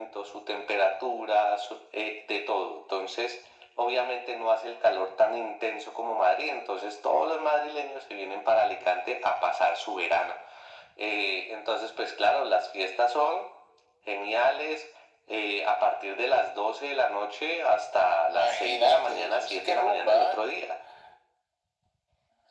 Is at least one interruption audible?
Yes, from 18.3 s

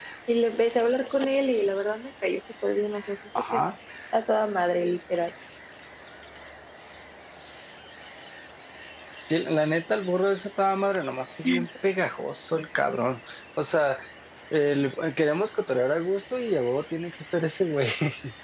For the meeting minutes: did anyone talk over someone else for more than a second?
No

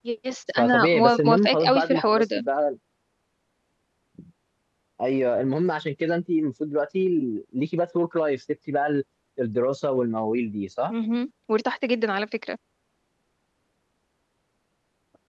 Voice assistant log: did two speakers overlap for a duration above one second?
Yes, from 0.6 s

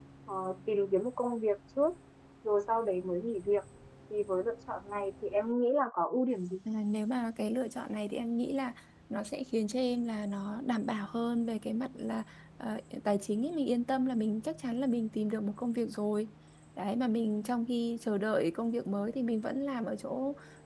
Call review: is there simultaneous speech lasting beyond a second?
No

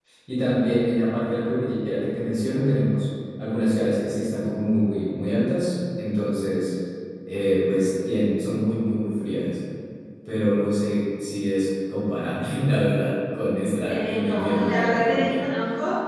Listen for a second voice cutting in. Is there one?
Yes, from 13.9 s

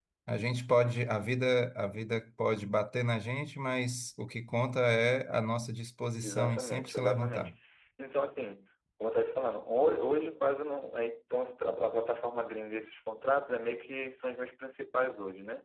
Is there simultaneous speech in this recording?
Yes, from 6.2 s

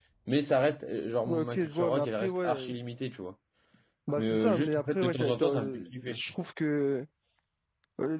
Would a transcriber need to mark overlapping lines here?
Yes, from 1.3 s

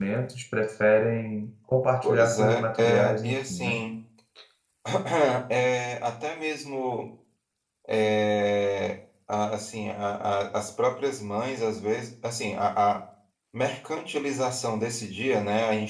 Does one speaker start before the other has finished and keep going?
Yes, from 2.0 s

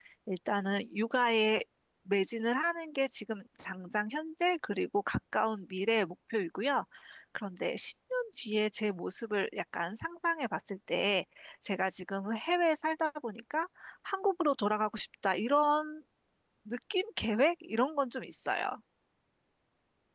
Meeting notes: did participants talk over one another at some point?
No

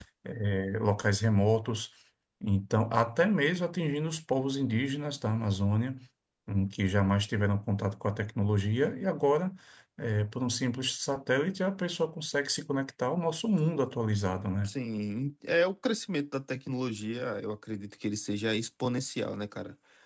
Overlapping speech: No

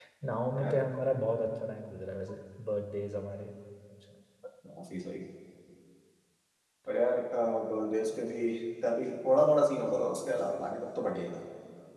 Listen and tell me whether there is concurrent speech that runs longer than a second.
No

